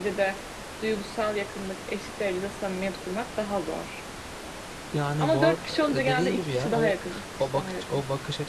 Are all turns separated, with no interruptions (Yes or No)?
No